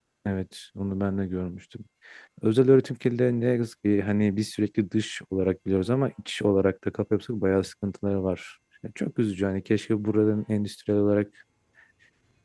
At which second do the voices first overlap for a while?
none

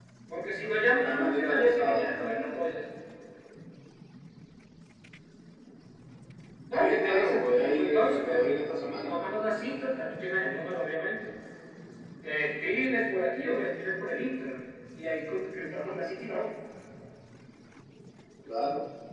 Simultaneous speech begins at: 0.6 s

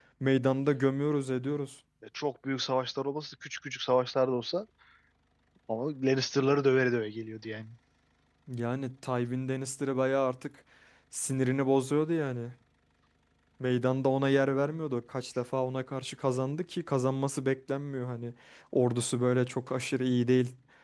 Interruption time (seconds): none

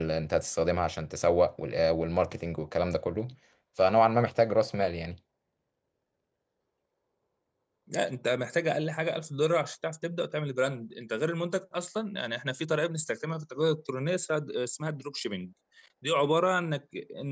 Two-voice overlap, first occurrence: none

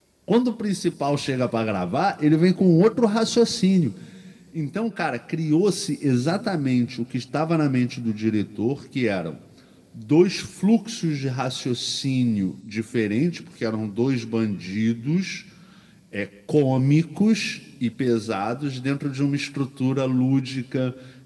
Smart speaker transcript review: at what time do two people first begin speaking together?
none

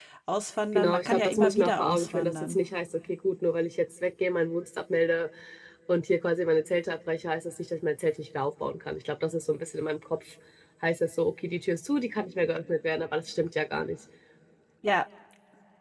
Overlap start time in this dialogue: 0.8 s

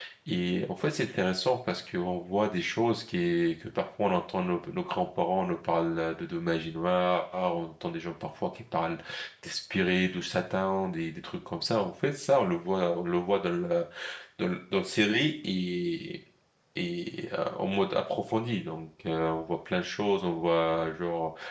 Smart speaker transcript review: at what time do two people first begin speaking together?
none

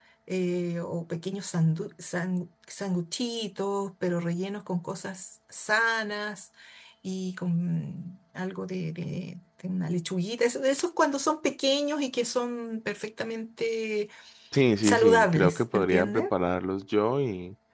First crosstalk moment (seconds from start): 14.8 s

